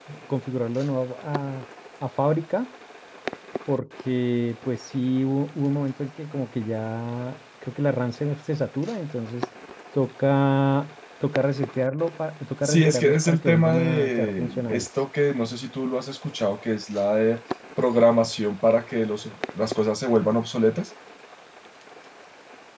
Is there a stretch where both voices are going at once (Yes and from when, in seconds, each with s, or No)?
Yes, from 12.6 s